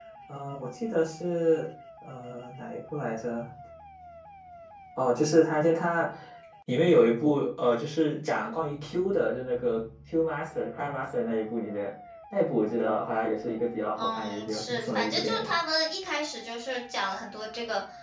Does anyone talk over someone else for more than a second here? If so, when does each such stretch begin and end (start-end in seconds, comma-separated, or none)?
14.0-15.5